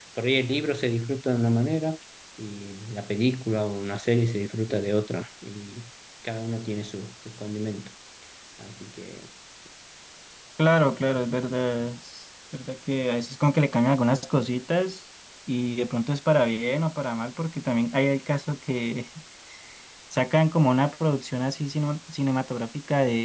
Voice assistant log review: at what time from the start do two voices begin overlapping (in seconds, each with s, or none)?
none